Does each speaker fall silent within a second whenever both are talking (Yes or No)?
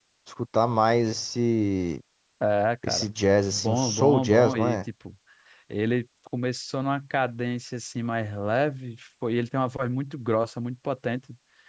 No